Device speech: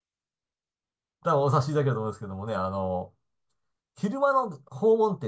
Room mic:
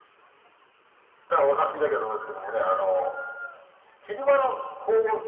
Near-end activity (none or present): none